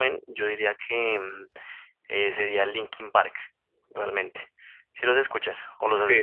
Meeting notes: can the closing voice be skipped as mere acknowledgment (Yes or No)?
No